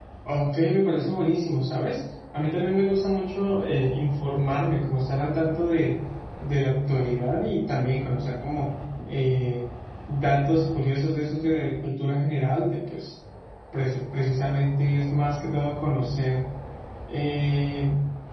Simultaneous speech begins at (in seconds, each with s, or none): none